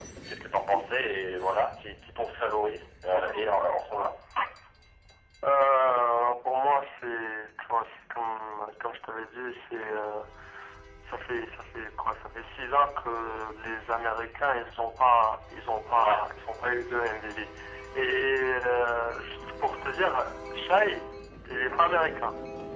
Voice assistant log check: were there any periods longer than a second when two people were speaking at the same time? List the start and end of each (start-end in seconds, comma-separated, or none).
none